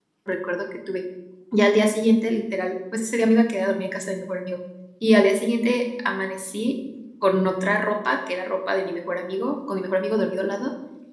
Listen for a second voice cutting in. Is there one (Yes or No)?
No